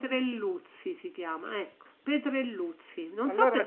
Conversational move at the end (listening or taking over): listening